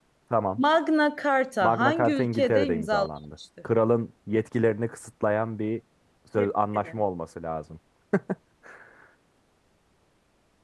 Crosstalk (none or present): present